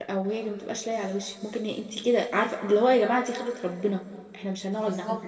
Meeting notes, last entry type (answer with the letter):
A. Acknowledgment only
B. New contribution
B